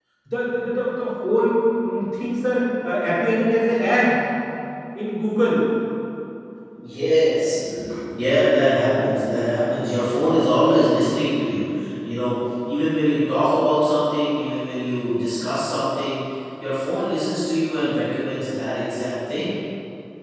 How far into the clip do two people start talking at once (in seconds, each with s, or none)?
none